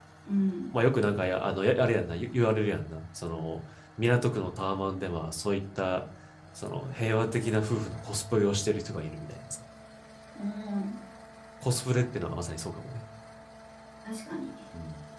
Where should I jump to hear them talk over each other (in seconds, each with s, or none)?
none